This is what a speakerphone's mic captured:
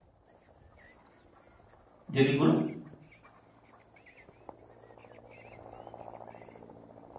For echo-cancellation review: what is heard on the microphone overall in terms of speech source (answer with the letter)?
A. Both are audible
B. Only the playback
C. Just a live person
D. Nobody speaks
C